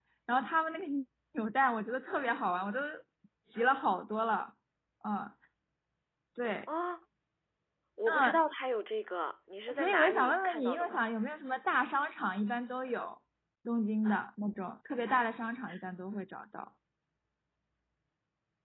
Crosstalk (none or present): present